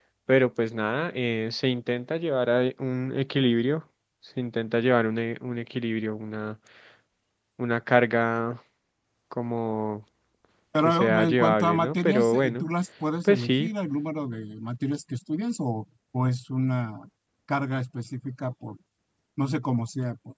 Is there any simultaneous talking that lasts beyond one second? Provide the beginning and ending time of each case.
10.8-12.7

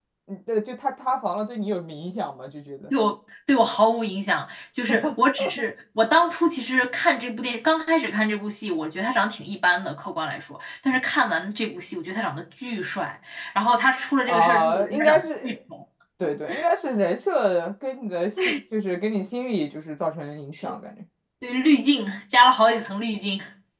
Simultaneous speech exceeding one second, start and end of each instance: 14.3-15.6

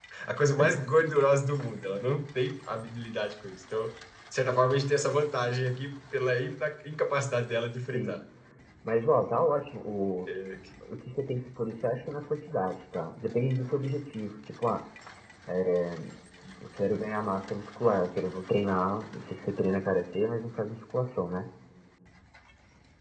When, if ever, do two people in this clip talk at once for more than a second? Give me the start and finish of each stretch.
none

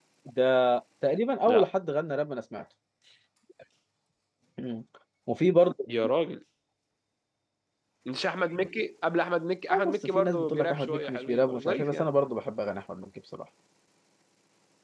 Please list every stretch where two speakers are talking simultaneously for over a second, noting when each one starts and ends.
9.7-12.1

